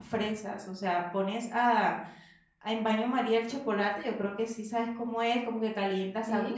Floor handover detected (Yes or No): No